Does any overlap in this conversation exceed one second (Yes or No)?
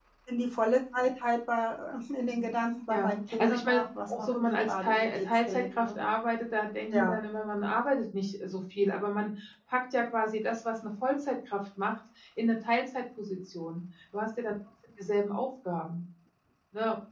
Yes